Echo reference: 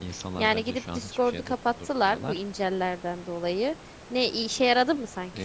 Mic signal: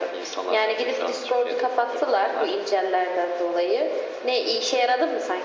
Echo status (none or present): present